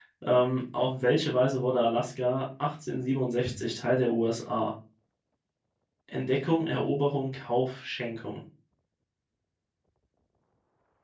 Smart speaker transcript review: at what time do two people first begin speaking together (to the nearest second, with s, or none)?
none